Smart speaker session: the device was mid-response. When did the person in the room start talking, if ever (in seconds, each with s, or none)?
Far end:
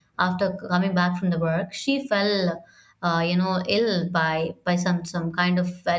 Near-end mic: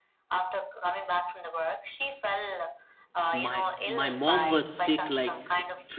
3.3 s